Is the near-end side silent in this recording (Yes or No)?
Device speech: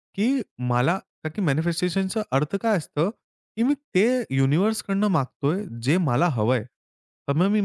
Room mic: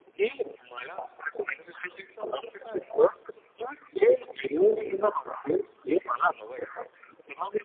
Yes